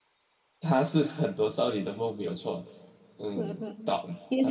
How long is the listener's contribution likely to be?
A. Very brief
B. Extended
B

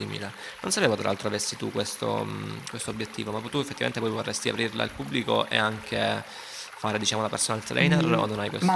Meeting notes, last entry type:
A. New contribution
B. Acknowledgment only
A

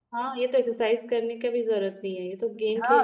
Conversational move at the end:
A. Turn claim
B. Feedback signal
A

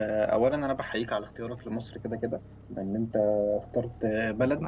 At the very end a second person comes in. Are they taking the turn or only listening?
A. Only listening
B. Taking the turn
A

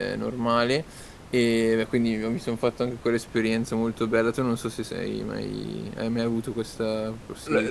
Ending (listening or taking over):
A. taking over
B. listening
A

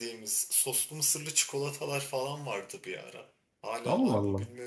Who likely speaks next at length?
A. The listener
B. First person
B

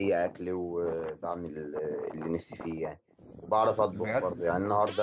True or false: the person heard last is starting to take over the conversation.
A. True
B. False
B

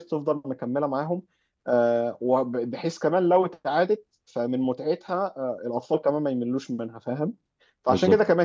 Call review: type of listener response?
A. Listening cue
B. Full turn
A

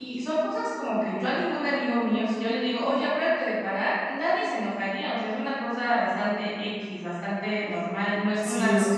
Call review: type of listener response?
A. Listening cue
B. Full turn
B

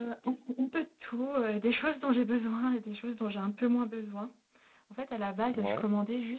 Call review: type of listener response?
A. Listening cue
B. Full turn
A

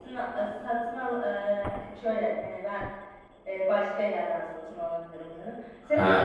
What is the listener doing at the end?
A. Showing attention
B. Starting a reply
A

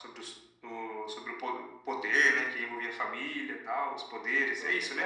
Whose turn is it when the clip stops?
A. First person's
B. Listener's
B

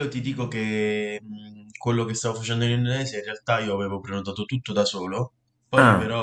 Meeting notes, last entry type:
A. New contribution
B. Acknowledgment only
B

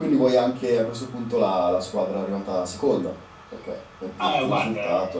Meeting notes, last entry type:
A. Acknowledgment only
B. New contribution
B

